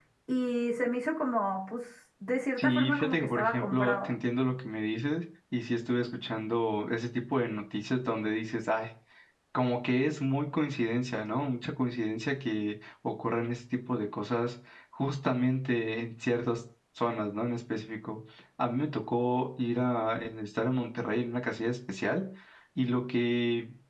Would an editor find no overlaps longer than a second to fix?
No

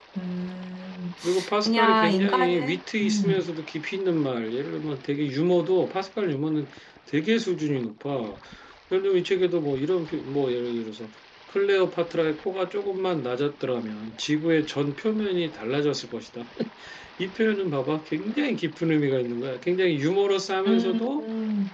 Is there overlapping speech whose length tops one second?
Yes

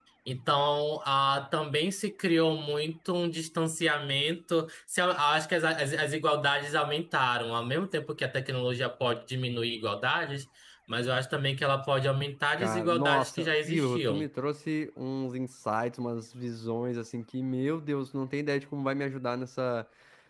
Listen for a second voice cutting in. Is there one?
Yes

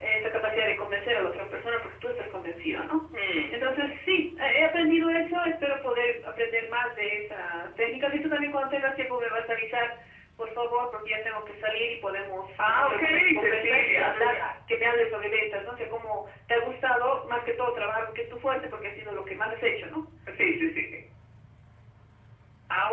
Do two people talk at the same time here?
Yes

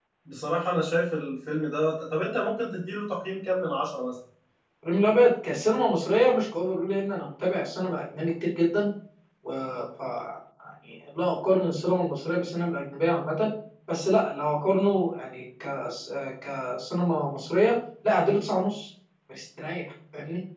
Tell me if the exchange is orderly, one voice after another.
Yes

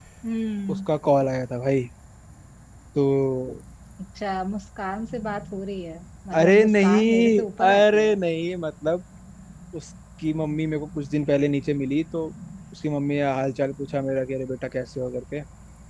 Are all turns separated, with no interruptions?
No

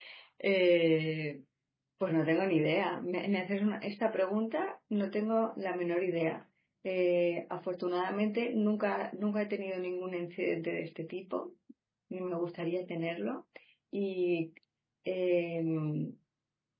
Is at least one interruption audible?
No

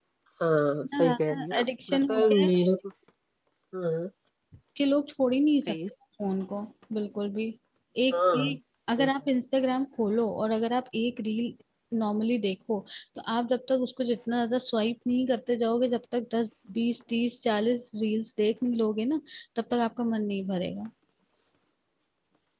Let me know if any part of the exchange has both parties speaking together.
Yes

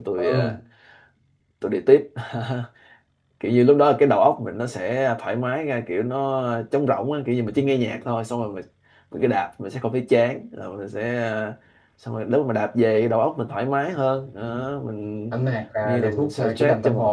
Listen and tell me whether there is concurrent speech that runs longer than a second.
Yes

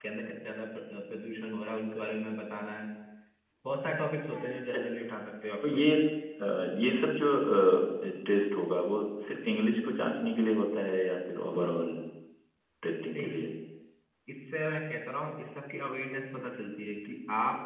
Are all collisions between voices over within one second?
Yes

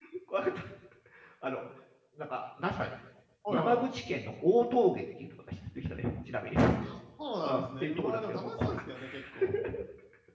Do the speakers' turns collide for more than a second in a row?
Yes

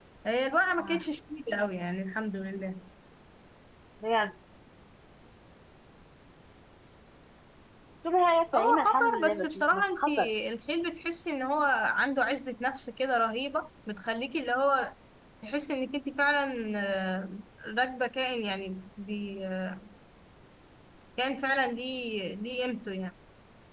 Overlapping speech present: Yes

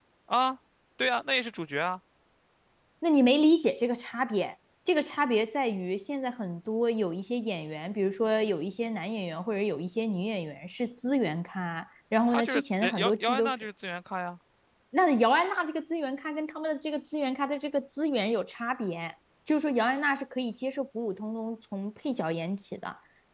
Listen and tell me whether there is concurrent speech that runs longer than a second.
Yes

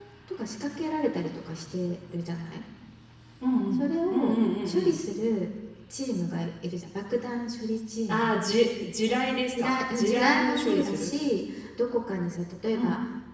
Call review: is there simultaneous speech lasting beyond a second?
Yes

